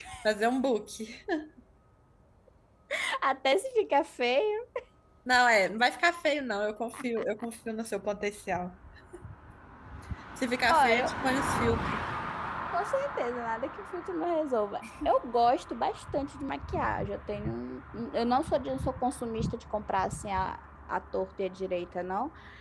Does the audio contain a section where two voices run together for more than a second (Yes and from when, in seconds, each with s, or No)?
No